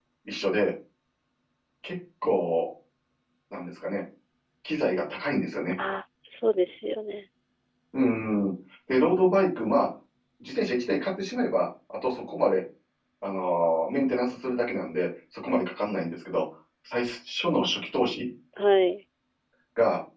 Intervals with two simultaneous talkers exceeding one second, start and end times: none

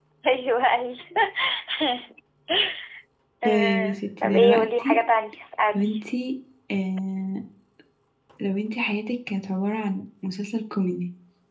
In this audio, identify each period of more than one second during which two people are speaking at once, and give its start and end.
3.4-5.0

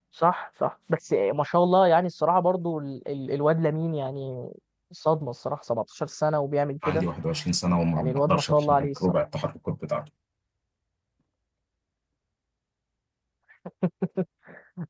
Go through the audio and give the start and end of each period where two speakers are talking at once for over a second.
7.9-9.2

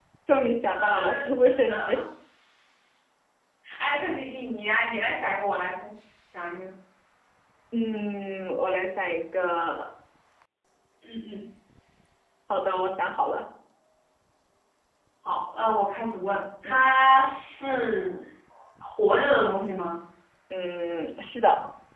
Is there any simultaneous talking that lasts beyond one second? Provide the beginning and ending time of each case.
0.7-2.0

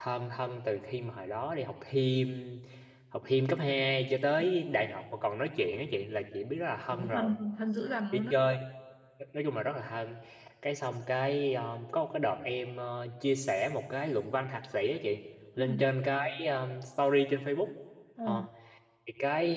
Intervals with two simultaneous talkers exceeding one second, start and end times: none

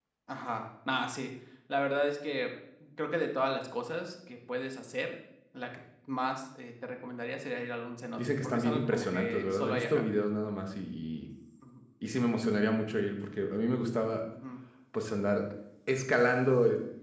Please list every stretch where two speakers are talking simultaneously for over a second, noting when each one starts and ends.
8.2-10.1

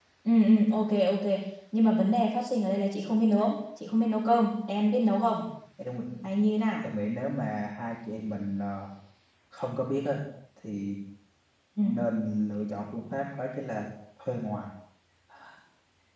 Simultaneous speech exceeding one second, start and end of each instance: none

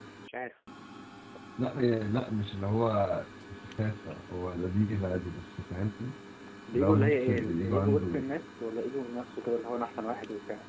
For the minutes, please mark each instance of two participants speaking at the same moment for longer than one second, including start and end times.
6.7-8.2

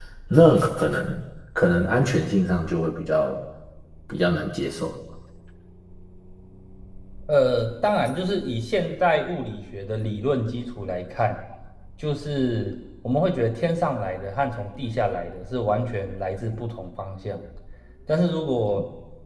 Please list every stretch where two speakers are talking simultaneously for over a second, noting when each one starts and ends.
none

